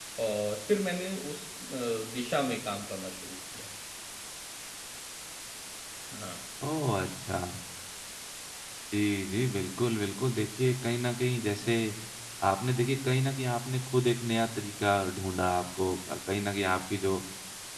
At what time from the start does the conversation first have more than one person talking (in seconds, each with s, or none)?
none